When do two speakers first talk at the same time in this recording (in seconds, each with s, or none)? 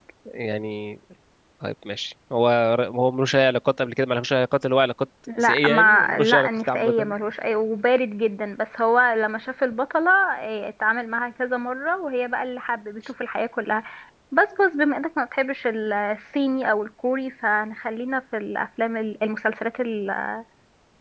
5.3 s